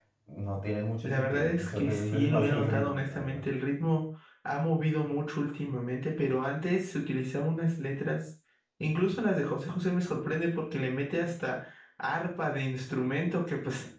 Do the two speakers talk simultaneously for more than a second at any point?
Yes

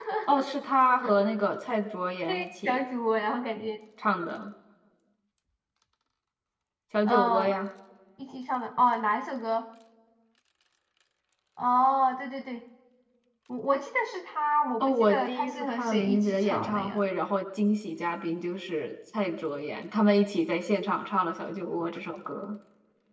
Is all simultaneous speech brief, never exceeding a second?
No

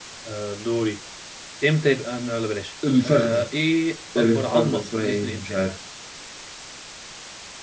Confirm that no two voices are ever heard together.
No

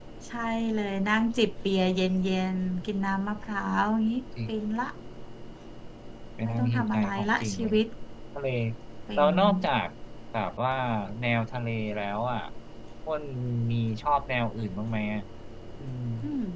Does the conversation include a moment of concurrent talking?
Yes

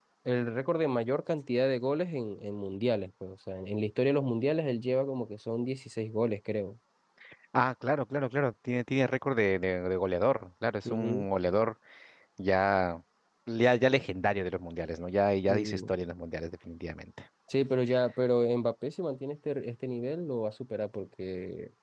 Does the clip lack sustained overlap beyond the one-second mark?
Yes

